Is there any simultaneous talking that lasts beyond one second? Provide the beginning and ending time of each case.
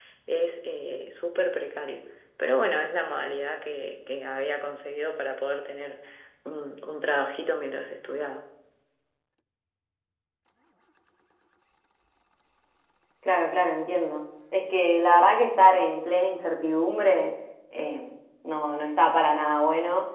none

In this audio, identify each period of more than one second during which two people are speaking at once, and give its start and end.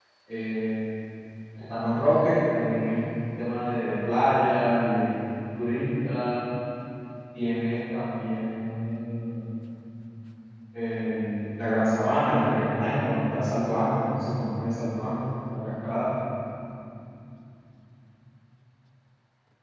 none

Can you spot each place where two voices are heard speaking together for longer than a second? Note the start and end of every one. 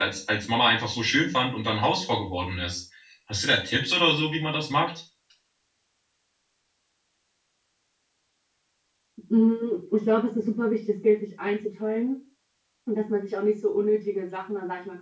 none

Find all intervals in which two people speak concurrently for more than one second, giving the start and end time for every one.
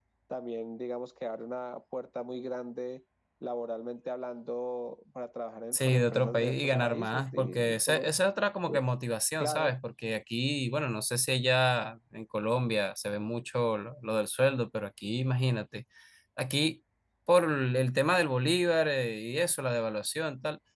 5.7-8.0

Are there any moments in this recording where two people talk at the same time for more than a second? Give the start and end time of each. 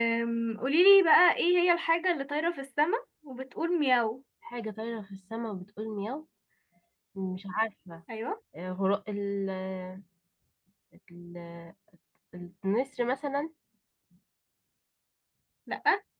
none

